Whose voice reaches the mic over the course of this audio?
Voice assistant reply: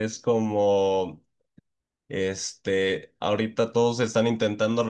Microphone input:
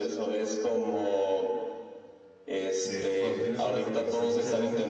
both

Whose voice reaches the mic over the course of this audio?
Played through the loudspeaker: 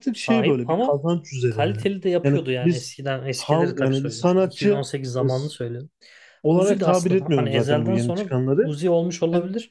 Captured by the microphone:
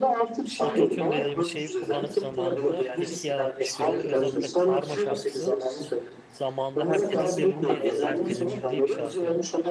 both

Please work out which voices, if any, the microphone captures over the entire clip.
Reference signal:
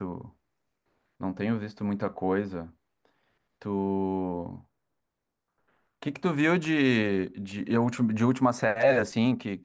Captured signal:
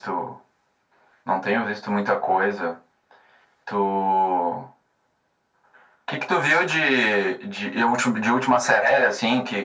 echo only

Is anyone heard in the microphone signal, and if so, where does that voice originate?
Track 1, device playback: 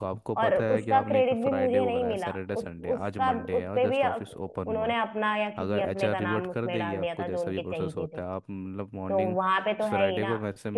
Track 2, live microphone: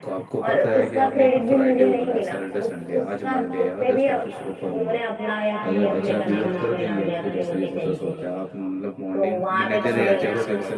both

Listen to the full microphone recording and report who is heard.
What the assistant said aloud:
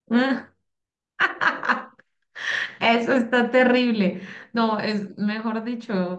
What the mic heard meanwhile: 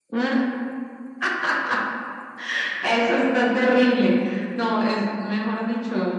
echo only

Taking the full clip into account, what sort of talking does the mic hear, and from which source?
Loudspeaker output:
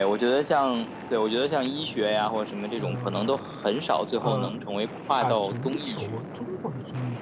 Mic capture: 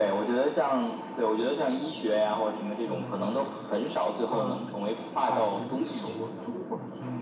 echo only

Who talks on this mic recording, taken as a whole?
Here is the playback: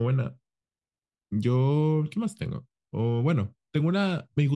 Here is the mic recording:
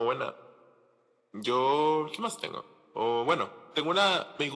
echo only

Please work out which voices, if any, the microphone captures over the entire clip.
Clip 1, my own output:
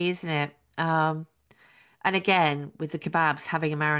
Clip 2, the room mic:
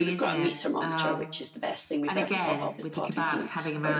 both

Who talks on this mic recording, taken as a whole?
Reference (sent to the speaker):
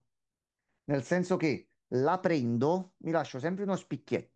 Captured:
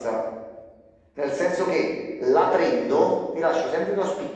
echo only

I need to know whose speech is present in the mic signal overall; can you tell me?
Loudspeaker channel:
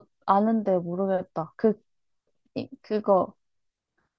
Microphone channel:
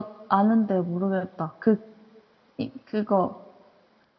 echo only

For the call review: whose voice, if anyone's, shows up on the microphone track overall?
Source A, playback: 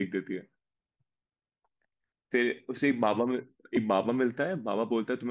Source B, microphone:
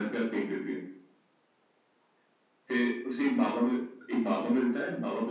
echo only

